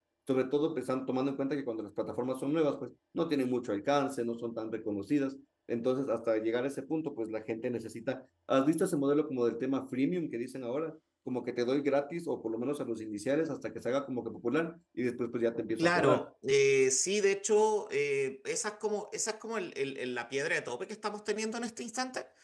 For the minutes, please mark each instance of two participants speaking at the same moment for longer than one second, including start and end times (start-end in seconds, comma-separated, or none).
none